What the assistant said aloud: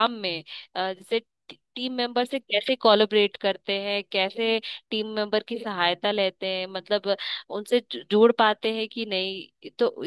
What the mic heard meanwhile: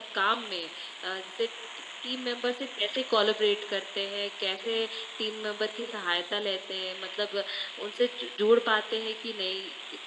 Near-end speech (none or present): none